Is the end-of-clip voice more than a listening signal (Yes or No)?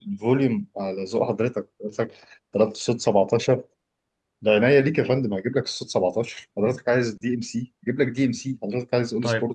Yes